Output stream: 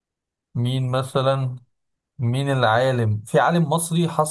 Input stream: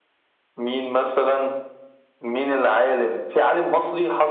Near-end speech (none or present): none